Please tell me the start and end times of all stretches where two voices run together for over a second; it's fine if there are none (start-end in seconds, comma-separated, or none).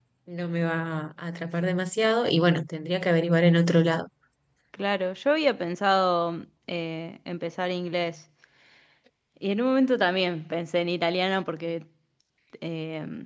none